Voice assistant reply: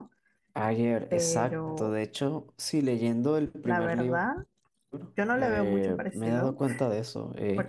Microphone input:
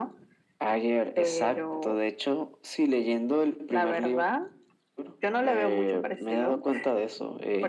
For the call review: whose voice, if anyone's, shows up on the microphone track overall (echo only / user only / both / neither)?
echo only